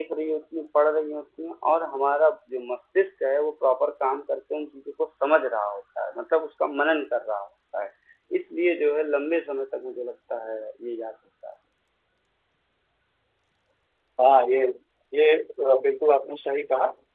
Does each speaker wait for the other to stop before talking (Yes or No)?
Yes